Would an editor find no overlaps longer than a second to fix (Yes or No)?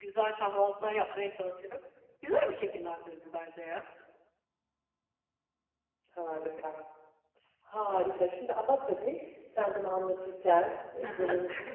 Yes